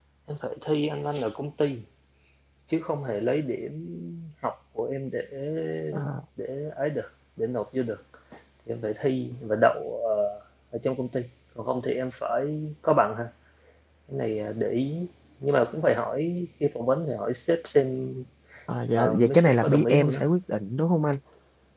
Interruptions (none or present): present